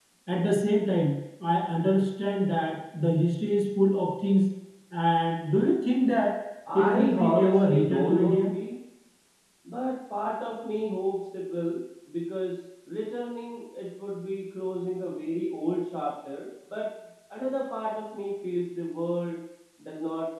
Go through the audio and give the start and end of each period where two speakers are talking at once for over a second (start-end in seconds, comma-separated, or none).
6.7-8.5